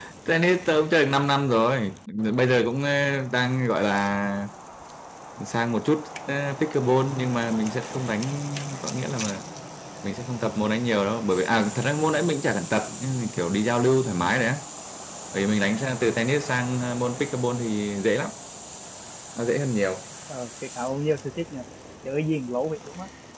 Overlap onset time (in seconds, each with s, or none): none